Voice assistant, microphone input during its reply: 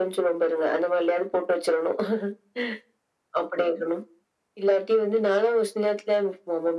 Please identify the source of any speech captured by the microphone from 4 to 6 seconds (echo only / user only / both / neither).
echo only